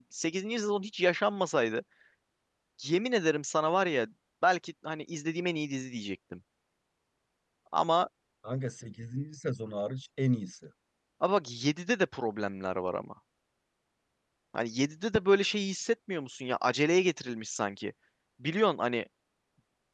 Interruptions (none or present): none